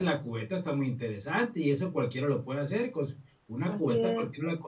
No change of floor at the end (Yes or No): Yes